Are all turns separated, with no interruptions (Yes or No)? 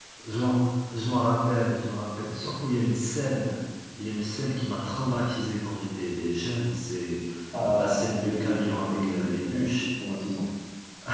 No